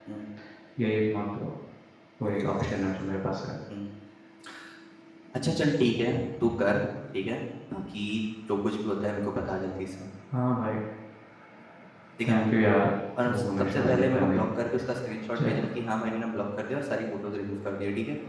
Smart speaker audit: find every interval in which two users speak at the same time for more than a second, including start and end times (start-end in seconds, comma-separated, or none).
13.2-14.5